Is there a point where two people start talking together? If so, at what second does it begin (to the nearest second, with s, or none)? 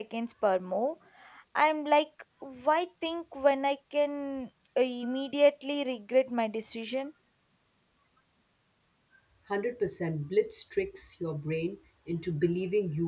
none